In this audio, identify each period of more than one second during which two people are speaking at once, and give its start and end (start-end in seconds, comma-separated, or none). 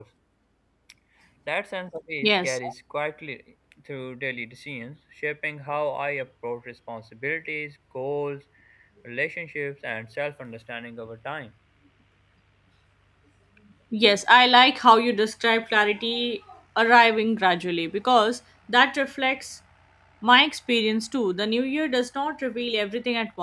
none